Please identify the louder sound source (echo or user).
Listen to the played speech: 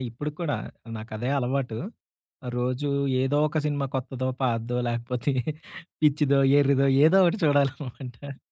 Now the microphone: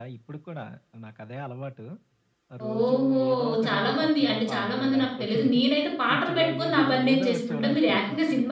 user